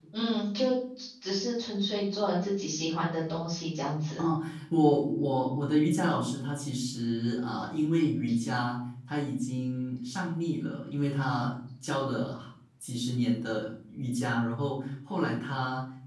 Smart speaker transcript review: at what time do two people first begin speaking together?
none

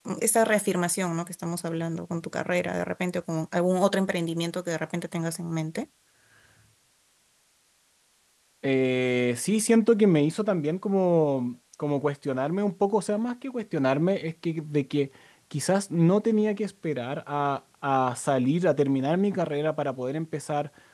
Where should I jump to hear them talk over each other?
none

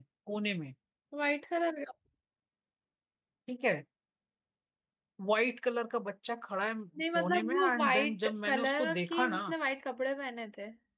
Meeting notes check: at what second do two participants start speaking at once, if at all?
7 s

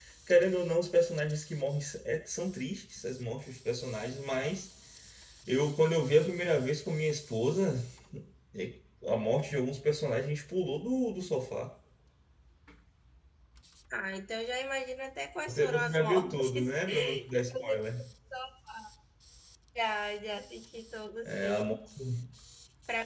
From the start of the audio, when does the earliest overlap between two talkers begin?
15 s

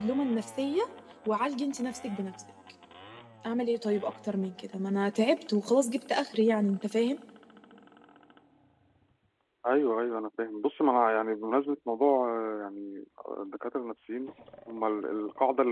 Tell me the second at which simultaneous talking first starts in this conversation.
none

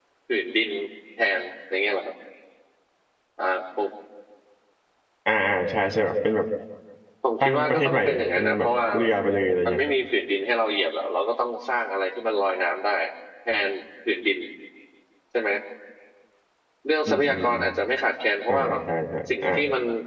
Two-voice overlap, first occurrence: 7 s

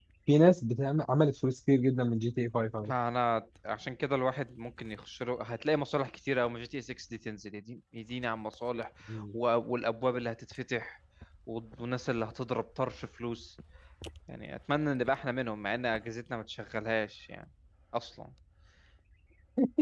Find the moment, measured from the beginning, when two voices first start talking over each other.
none

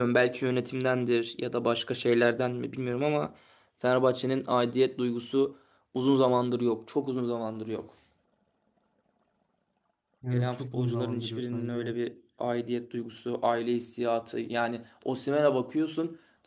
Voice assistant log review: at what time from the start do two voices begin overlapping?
10 s

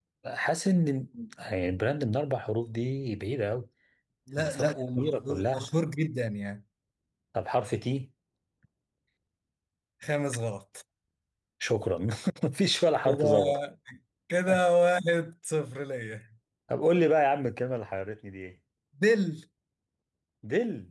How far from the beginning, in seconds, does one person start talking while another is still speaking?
4 s

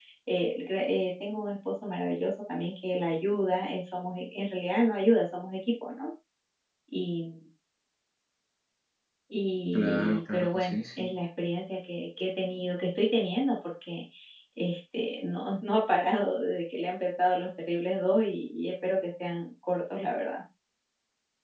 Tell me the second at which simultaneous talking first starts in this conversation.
10 s

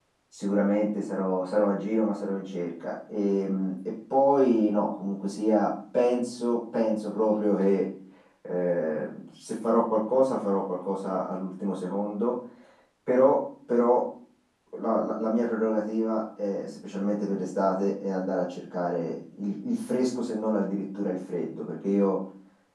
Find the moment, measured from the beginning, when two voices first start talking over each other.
none

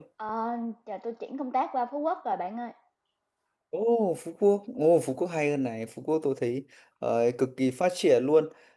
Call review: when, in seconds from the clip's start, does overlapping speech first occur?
none

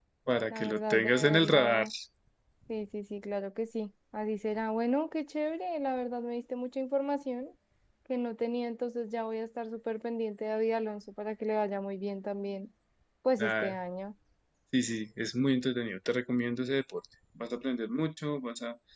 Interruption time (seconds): 1 s

